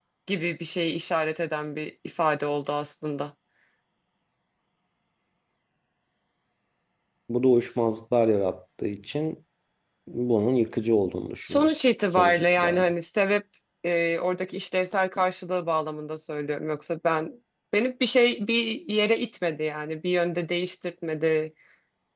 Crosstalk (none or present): present